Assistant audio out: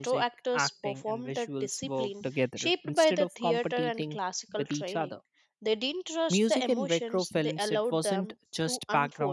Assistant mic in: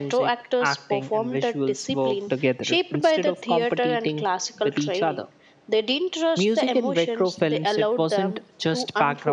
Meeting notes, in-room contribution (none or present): none